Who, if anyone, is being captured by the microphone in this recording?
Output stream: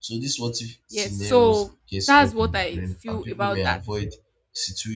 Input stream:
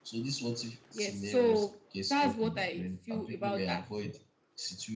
echo only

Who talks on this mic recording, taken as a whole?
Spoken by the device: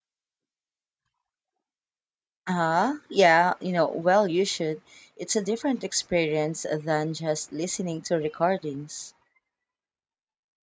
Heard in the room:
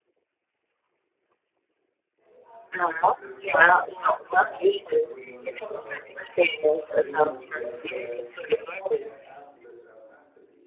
both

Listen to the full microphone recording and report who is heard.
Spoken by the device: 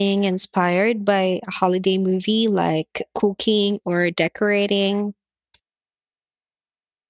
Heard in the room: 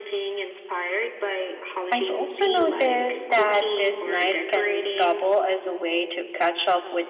both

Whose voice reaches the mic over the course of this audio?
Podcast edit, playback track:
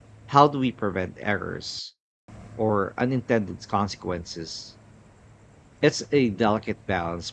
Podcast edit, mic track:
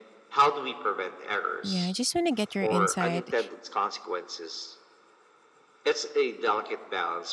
both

